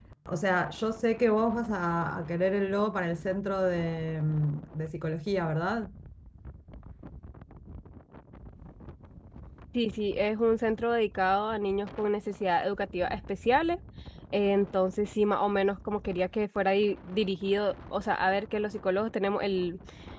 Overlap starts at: none

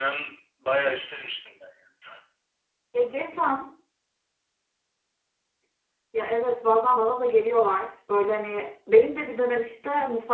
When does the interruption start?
none

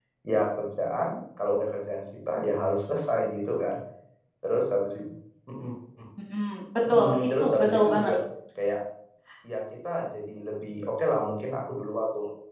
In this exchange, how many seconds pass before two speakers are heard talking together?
7 s

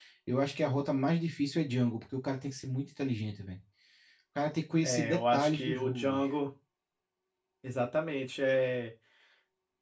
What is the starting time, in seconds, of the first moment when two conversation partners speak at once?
5 s

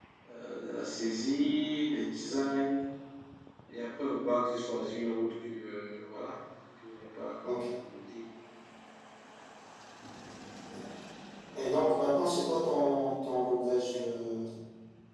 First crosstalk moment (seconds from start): none

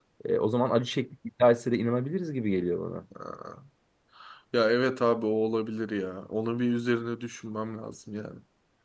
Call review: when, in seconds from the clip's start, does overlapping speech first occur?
none

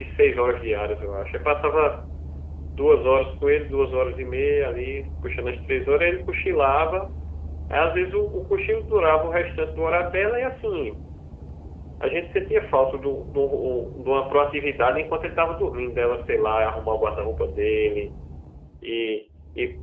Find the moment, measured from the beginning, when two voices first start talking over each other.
none

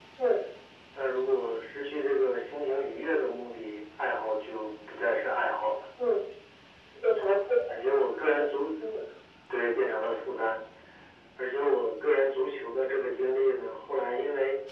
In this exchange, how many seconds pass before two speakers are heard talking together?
none

